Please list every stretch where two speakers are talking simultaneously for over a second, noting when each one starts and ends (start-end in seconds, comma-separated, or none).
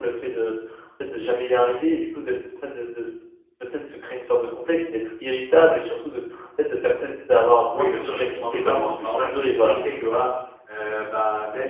7.7-9.8